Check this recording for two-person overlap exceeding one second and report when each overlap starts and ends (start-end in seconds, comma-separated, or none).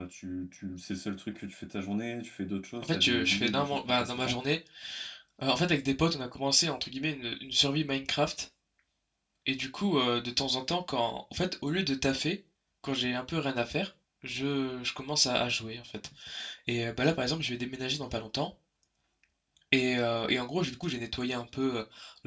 2.8-4.4